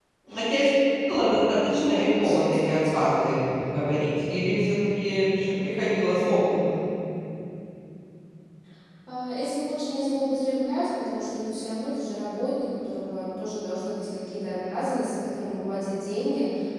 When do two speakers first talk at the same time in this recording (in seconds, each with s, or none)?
1.7 s